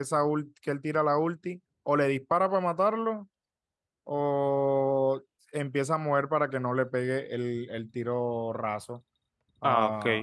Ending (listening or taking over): taking over